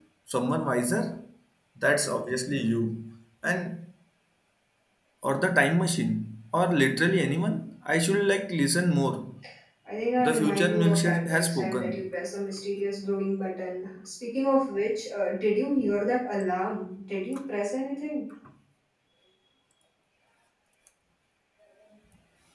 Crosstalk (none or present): present